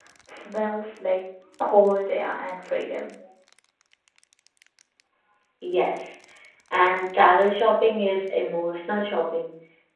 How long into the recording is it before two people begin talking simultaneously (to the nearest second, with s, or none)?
none